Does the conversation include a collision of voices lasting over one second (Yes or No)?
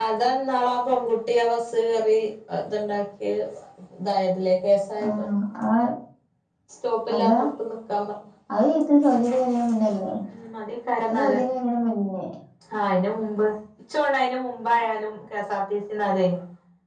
No